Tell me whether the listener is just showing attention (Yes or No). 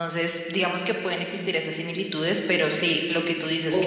No